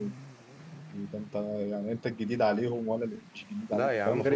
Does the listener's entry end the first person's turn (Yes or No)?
Yes